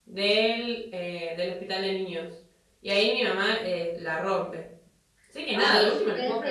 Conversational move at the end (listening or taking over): taking over